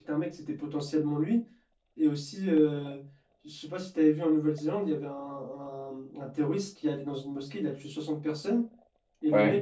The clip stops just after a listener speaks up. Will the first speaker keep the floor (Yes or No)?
Yes